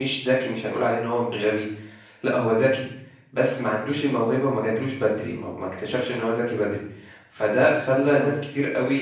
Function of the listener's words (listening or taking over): listening